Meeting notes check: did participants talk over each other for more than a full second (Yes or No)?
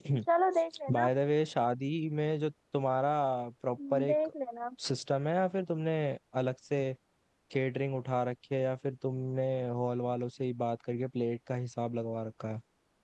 No